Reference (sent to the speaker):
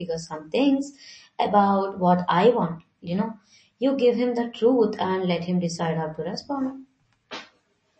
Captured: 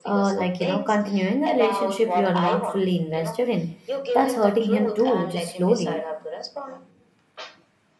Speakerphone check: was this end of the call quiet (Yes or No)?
No